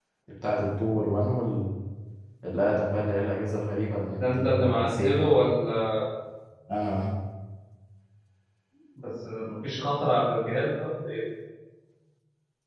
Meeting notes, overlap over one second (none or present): present